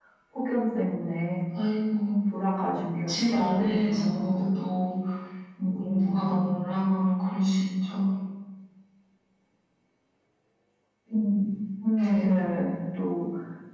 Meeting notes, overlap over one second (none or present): present